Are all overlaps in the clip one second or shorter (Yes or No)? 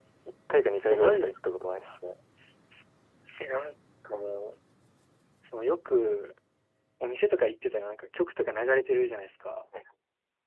Yes